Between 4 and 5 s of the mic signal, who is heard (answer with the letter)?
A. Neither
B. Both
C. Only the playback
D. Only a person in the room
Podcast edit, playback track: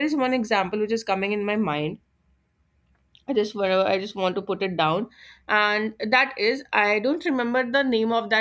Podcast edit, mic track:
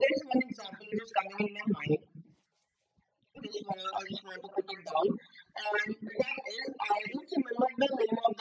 C